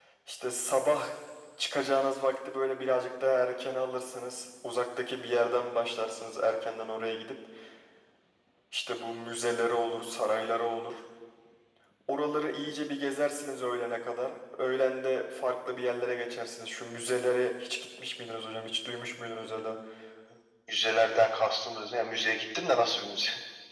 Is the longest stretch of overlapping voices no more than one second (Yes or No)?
Yes